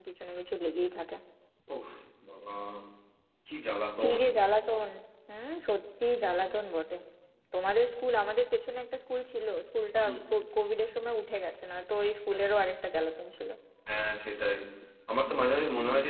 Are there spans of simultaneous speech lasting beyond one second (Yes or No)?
No